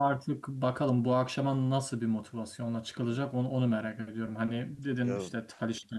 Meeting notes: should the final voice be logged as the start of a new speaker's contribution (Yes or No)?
No